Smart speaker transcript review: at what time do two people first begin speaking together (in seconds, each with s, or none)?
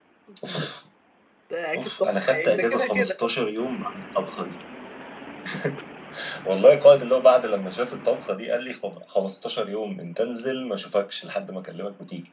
1.8 s